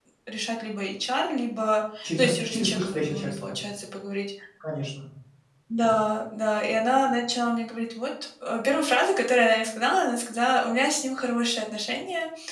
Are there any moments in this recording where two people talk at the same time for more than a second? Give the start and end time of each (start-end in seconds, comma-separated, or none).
2.0-3.5